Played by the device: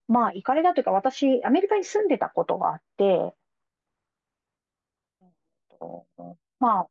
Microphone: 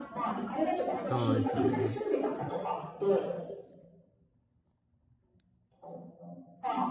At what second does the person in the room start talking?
1 s

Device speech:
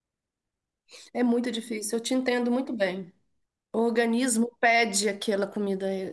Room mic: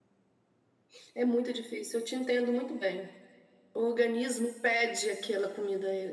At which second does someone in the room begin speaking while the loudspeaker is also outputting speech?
none

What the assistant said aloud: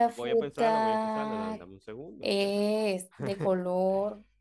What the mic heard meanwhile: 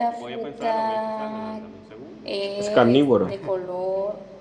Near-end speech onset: 3 s

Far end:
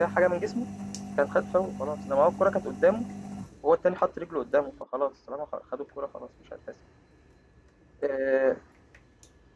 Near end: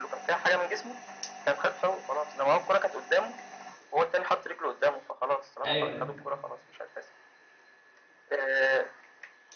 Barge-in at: 6 s

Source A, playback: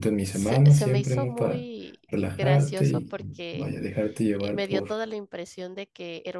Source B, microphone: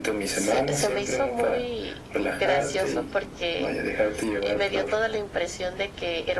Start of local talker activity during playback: none

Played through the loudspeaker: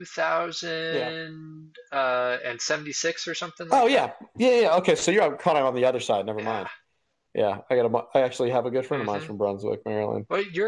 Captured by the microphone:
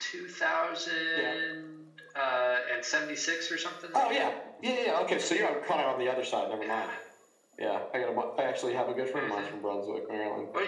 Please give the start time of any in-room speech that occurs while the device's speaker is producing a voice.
none

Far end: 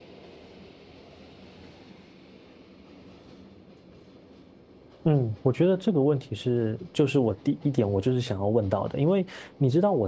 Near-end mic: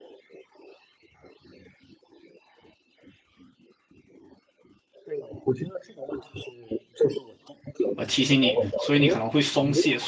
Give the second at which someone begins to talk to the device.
8 s

